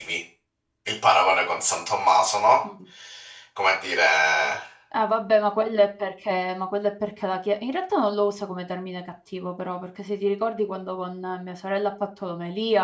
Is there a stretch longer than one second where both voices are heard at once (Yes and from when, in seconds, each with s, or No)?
No